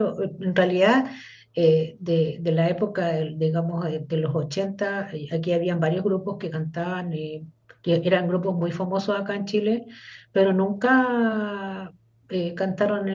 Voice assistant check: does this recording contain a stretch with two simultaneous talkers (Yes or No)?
No